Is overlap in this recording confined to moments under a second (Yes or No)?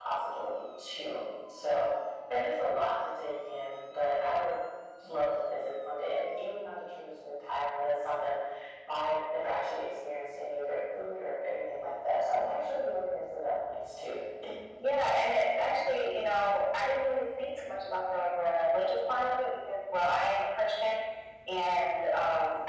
Yes